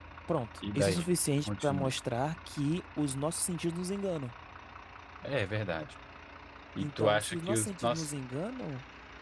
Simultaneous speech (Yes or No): Yes